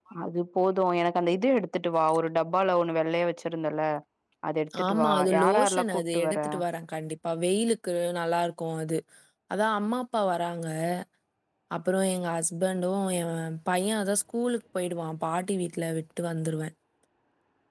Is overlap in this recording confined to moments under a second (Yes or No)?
No